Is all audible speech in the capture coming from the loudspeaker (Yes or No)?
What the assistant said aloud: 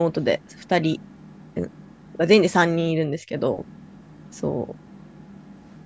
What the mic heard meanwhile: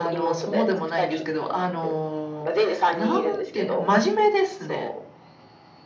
No